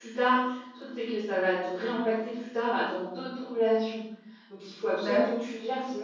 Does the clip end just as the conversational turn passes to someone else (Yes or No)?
No